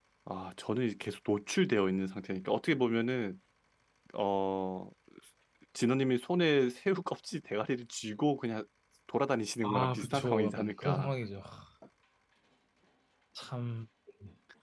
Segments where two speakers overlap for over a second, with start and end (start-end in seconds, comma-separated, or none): 9.6-11.1